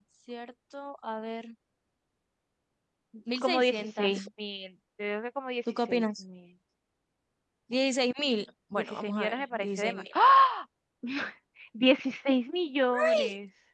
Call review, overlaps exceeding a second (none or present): present